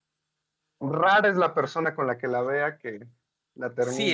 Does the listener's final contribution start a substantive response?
Yes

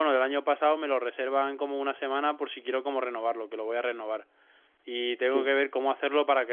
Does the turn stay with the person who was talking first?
Yes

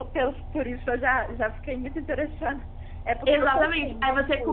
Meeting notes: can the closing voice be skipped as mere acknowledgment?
No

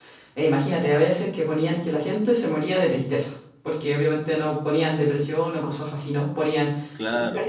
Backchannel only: Yes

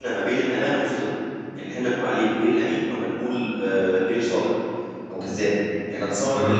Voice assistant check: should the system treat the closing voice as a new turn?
No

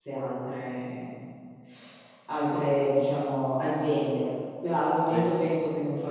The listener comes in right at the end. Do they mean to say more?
No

